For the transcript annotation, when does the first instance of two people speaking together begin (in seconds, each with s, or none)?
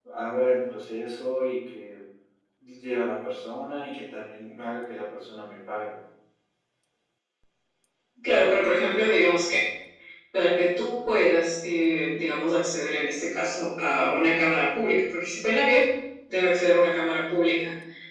none